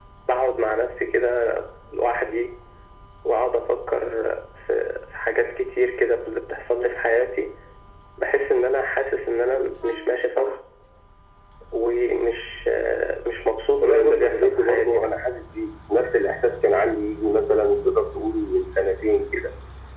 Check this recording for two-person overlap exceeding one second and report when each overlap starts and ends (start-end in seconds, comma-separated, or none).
13.8-15.1